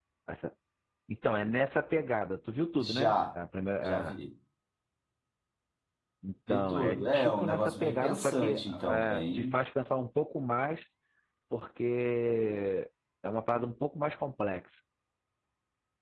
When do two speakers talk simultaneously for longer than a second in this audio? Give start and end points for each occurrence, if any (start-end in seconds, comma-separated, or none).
6.5-9.5